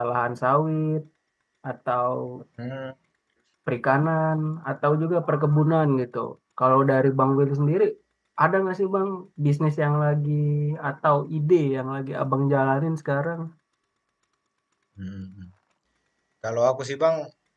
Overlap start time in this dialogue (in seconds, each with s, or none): none